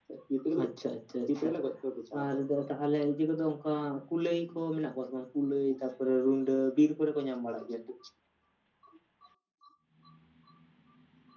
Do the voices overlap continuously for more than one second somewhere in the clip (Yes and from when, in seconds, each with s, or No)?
No